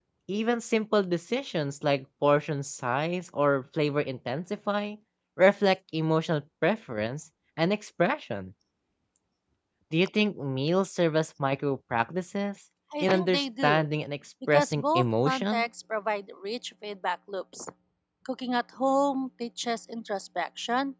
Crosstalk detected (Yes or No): Yes